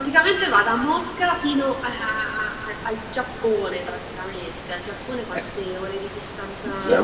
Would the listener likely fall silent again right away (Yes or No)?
No